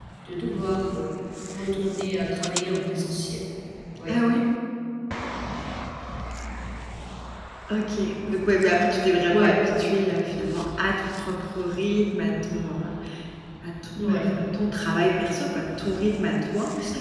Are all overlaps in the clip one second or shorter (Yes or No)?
Yes